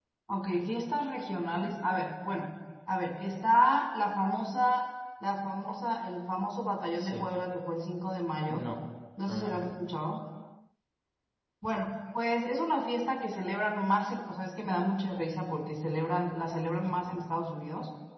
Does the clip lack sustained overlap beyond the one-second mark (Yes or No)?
Yes